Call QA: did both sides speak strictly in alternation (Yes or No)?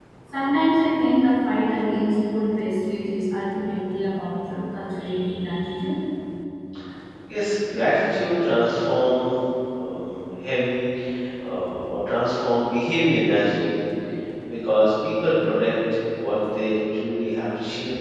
Yes